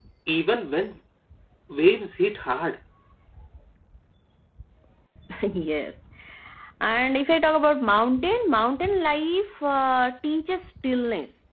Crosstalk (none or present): none